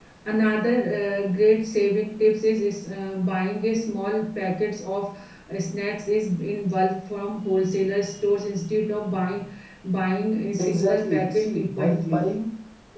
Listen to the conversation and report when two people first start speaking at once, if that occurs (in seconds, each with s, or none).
10.6 s